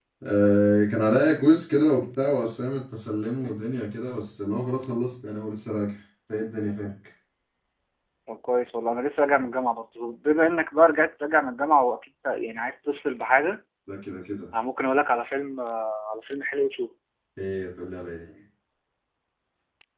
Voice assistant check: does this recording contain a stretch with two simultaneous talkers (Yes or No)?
No